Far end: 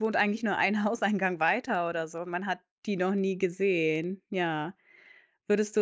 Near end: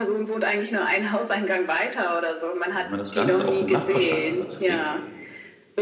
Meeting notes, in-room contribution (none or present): present